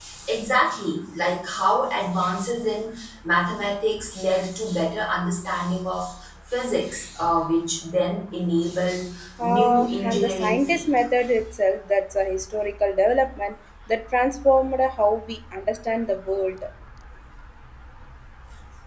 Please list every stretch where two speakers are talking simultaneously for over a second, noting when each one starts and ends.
9.4-11.0

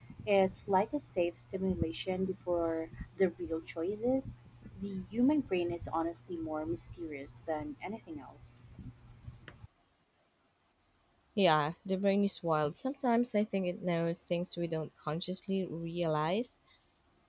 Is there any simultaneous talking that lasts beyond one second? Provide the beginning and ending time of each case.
none

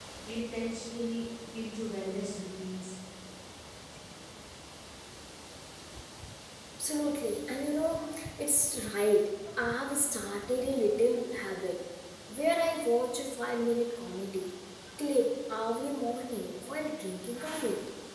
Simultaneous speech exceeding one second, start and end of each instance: none

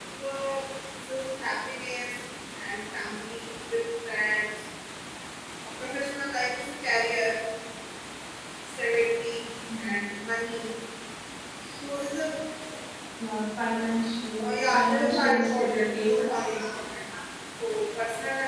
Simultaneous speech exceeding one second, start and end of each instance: 14.4-16.6

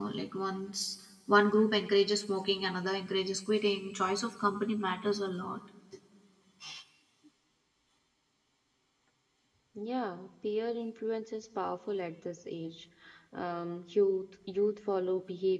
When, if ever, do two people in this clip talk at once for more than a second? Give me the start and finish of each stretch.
none

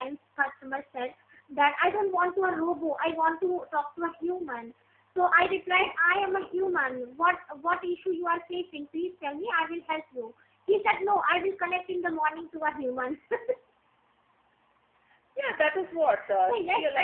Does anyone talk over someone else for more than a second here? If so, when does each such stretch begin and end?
none

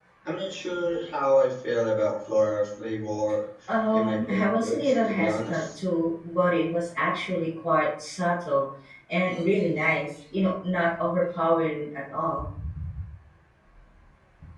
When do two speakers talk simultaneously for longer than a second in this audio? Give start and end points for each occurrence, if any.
3.9-5.6

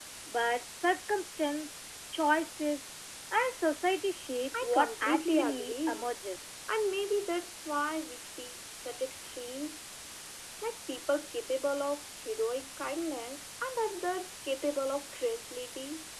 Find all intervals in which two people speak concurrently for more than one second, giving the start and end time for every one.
4.6-6.1

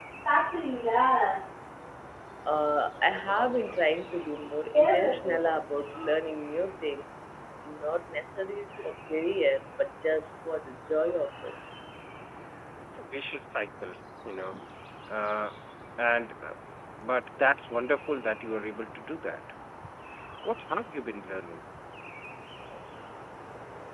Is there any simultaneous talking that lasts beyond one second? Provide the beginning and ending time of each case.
none

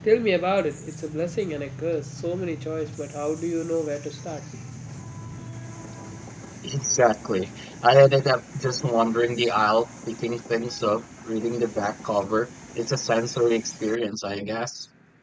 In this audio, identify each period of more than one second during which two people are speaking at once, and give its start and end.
none

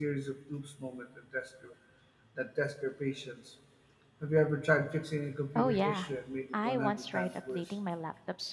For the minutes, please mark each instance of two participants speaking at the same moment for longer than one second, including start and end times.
6.5-7.8

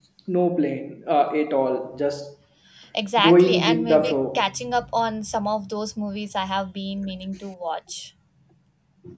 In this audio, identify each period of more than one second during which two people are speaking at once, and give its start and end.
3.2-4.5

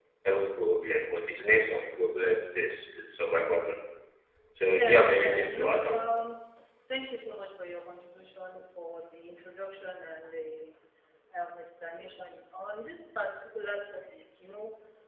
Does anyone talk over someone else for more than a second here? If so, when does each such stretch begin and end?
4.8-6.0

